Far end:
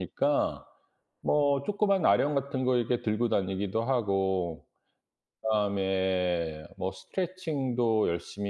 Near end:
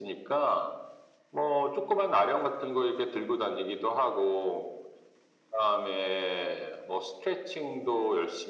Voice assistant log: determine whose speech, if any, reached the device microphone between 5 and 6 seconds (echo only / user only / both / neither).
echo only